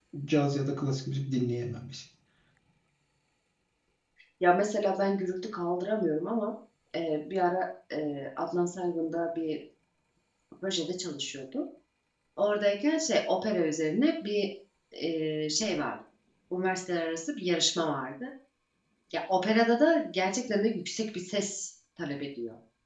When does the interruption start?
none

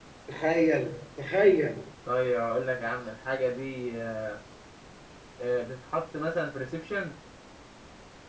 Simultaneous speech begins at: none

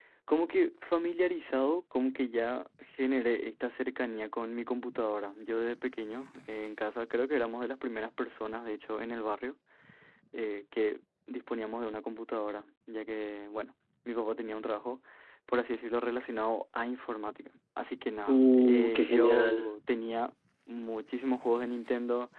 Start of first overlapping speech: 18.3 s

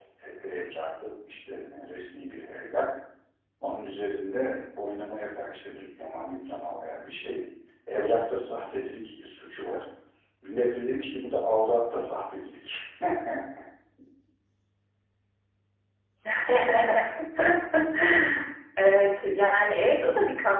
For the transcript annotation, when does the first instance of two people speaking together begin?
none

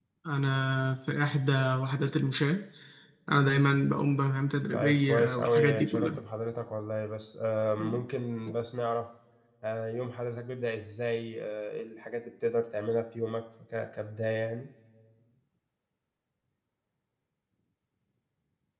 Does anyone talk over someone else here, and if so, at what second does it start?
4.7 s

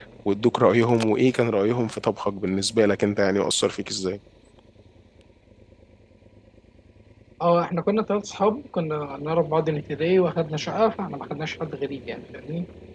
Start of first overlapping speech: none

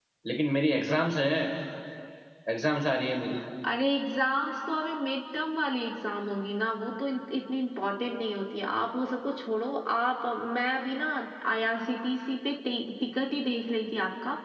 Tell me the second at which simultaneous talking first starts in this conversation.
none

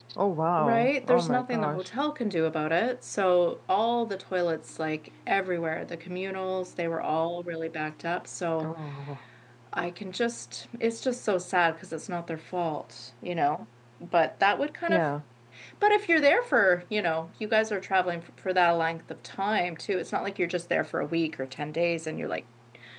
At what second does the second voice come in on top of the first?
0.6 s

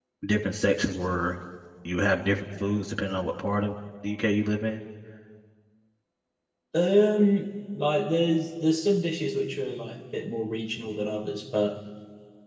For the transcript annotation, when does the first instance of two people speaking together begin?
none

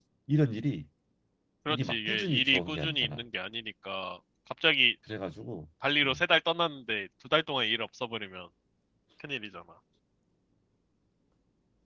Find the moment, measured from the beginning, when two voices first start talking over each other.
1.7 s

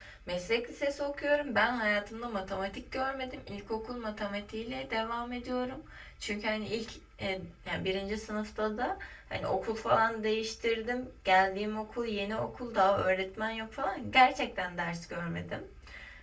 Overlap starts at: none

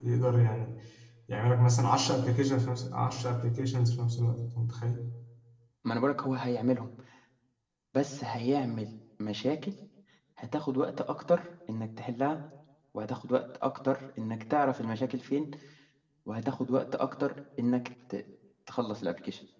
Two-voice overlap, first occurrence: none

